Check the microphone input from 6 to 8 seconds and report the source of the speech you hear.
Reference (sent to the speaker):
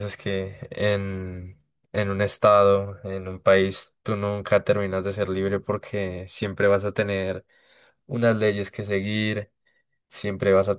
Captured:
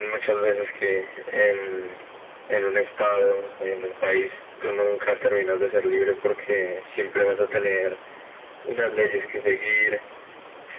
echo only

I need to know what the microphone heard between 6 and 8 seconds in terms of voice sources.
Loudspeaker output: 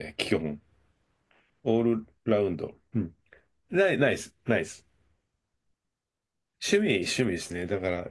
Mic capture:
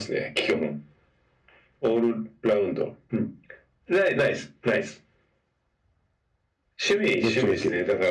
both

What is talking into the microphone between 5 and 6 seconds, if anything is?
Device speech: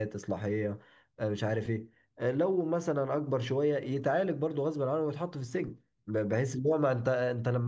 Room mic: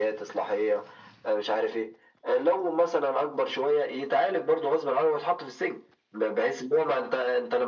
echo only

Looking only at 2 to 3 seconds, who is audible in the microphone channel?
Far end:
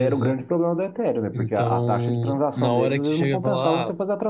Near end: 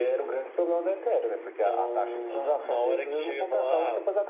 both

